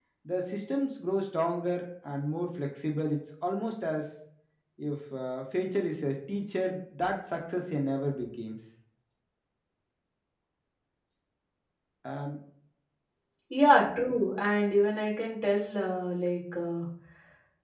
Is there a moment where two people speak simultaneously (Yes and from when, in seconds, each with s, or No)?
No